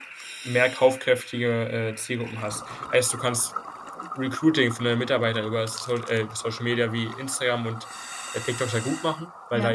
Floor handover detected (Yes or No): No